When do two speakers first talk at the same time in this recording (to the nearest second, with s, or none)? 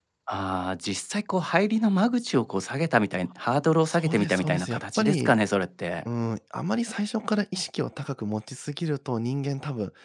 4 s